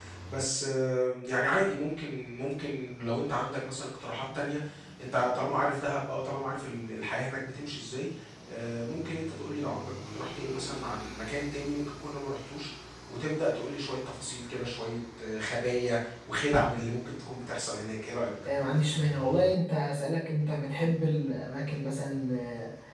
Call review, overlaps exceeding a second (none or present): none